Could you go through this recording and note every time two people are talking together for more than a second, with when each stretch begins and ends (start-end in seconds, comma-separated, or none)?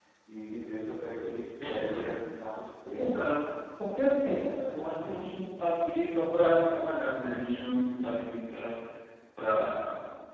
none